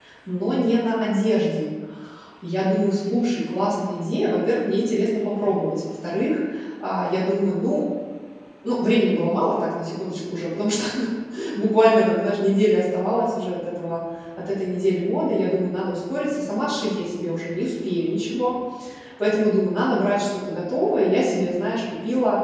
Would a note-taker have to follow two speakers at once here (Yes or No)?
No